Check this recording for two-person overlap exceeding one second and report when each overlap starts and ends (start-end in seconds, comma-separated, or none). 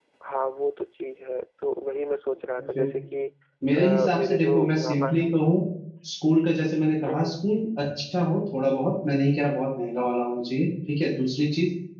3.8-5.1